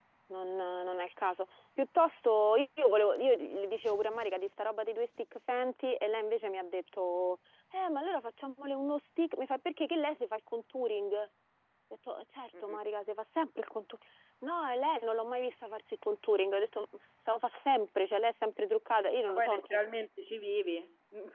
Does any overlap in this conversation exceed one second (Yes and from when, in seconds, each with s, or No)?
No